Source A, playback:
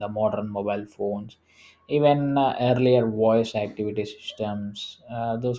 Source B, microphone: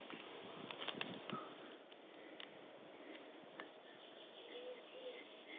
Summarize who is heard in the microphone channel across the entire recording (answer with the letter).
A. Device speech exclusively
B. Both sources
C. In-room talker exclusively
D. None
D